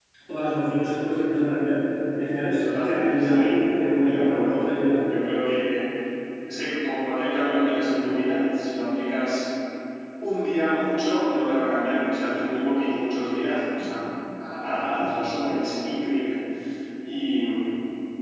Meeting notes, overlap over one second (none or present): present